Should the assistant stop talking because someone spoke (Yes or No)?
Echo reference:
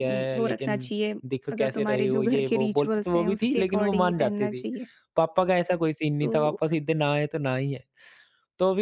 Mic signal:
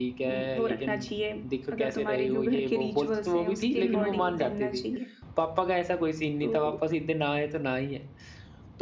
Yes